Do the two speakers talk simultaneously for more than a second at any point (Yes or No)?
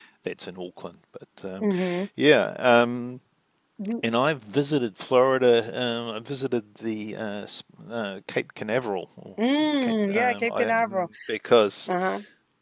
Yes